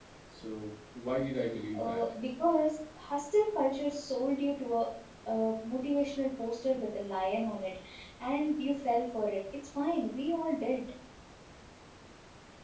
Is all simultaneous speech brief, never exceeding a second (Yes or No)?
Yes